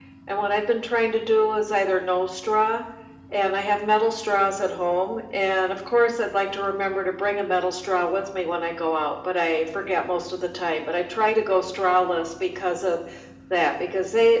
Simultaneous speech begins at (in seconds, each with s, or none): none